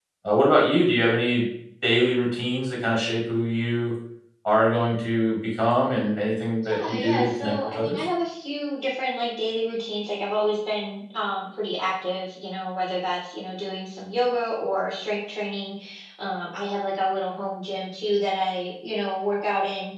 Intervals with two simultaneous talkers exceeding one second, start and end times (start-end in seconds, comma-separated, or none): 6.8-8.0